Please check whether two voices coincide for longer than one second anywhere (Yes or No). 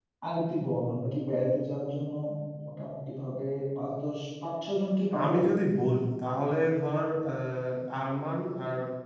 No